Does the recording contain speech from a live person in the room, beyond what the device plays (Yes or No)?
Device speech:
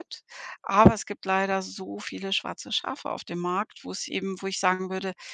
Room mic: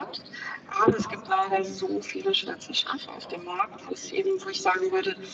No